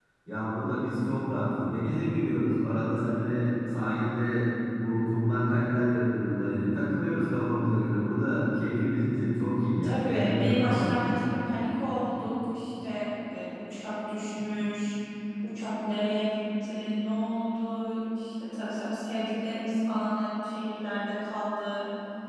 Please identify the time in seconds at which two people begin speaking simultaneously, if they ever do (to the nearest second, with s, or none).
10 s